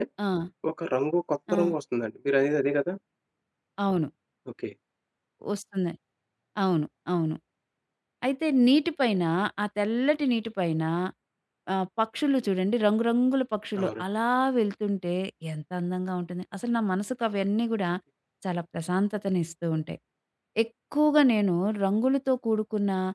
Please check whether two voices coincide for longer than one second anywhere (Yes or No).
No